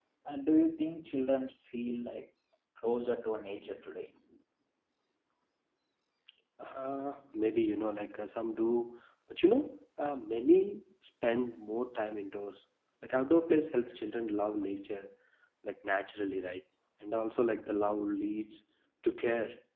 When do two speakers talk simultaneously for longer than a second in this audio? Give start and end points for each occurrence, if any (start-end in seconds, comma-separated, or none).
none